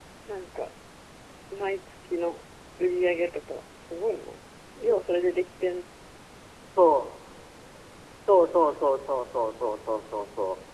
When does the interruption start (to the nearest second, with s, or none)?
none